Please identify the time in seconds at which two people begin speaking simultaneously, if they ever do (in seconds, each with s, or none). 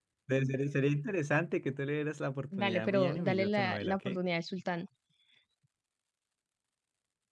2.5 s